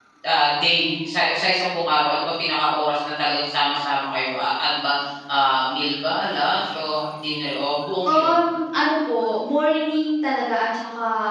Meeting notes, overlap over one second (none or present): none